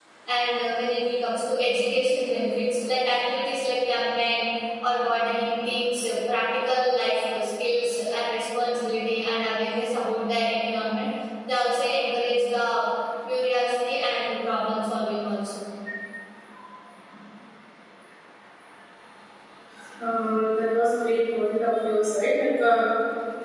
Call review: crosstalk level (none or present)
none